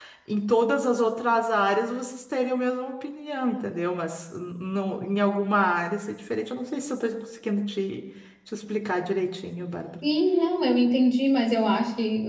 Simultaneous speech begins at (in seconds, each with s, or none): none